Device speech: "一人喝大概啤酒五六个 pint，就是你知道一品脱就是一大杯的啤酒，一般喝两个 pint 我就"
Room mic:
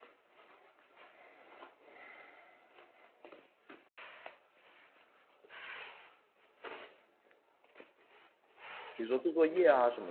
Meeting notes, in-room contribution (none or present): present